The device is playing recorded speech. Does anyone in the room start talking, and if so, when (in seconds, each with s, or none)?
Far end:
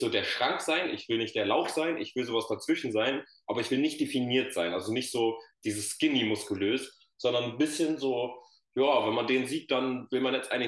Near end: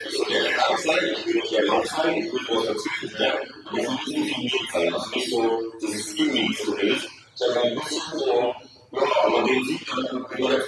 none